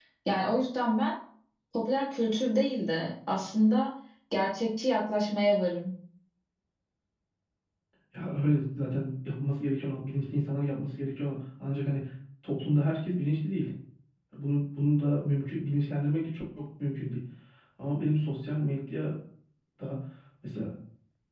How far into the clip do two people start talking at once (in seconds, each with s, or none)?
none